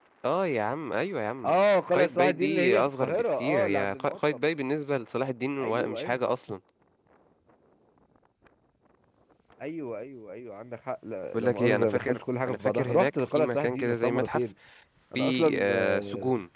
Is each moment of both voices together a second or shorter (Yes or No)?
No